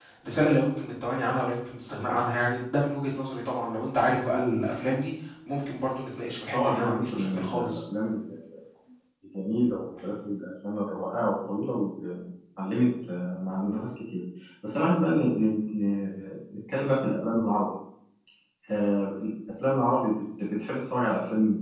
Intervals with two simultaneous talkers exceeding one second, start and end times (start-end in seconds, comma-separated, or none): 6.5-7.8